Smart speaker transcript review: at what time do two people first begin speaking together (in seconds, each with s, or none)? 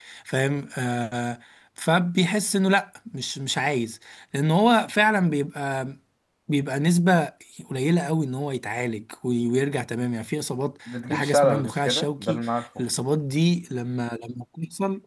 10.9 s